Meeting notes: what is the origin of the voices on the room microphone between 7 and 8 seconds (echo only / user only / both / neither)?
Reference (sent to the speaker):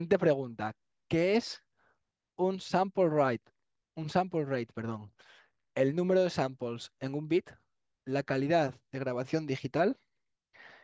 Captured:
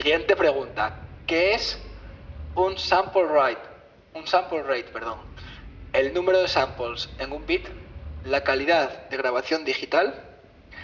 echo only